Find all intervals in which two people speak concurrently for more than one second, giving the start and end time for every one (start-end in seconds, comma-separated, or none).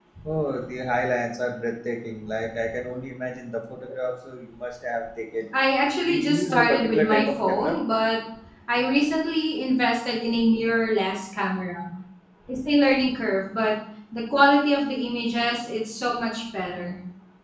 6.0-7.8